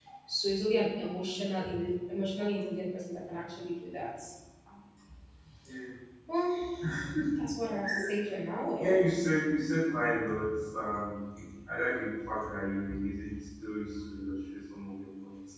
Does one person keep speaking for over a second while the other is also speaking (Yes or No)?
No